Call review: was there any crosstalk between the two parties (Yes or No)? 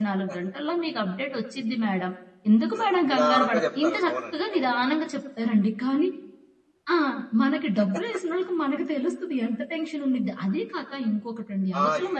Yes